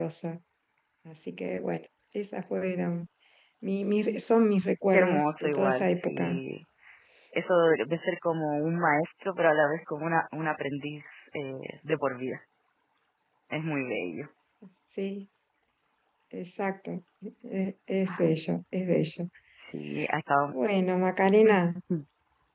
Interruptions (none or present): present